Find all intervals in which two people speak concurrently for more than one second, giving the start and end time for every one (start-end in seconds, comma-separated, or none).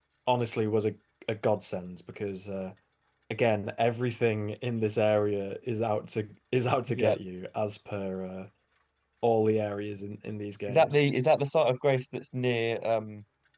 none